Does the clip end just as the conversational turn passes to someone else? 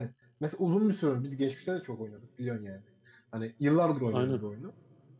No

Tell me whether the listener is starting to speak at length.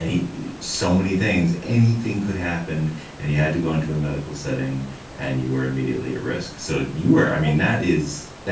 No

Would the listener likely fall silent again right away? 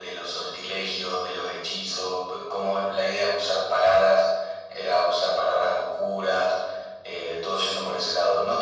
Yes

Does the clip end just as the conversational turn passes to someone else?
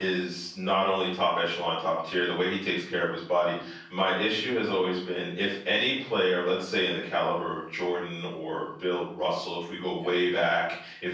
No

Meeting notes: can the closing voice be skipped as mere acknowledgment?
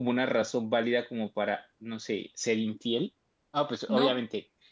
Yes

